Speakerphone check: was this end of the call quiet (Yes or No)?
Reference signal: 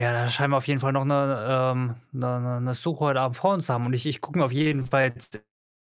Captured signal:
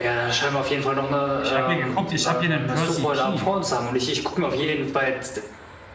No